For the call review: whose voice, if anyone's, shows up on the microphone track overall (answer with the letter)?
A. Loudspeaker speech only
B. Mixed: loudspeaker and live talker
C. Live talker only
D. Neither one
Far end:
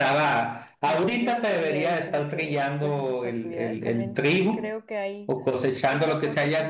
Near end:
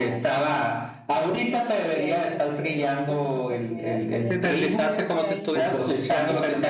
B